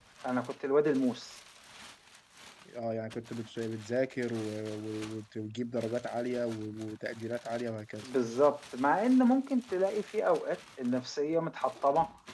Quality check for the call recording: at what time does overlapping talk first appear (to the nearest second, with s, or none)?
none